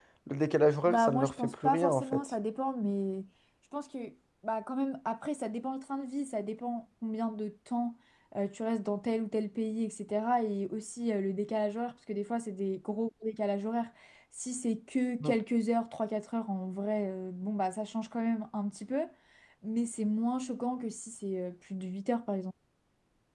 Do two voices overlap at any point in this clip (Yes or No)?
Yes